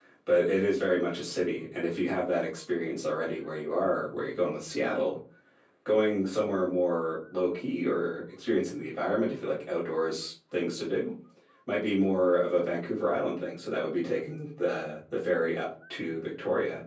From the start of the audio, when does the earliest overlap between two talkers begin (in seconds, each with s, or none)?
none